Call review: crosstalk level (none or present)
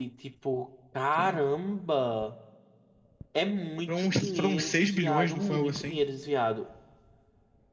present